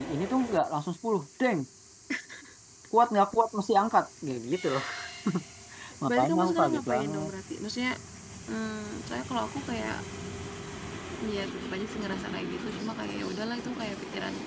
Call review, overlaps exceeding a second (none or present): present